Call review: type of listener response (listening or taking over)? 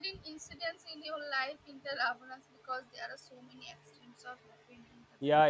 taking over